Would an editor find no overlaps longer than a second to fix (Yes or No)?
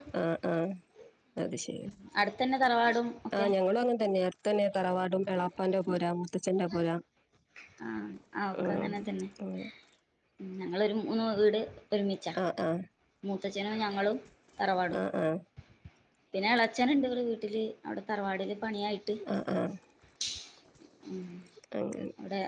Yes